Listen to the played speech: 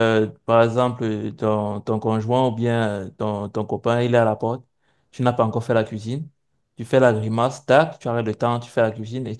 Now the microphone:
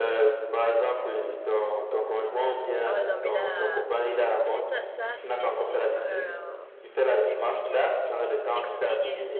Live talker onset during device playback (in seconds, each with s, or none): 2.8 s